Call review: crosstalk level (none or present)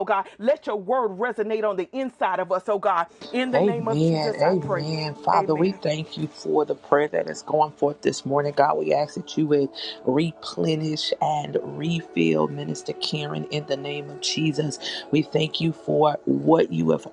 present